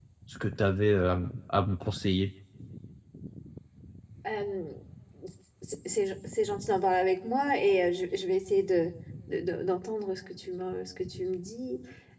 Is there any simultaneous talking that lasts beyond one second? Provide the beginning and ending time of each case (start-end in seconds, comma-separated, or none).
none